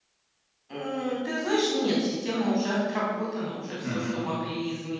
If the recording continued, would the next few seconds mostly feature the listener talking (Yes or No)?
No